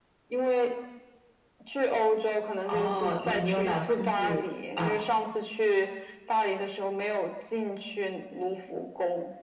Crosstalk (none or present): present